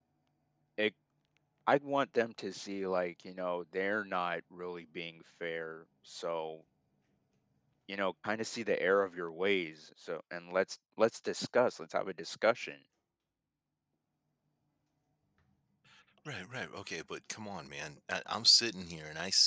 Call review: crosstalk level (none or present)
none